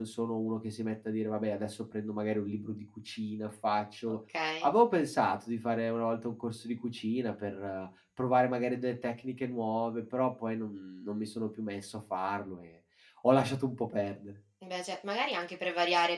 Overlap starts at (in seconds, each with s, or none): none